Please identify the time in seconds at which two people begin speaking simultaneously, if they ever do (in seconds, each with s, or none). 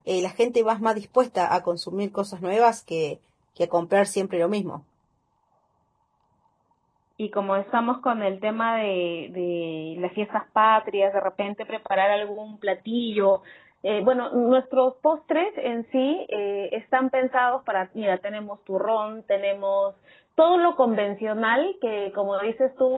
none